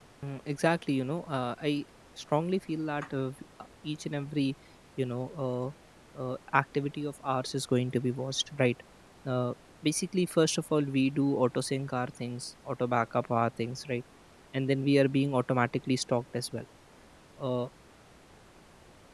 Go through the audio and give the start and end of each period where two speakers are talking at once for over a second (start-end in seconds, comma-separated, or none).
none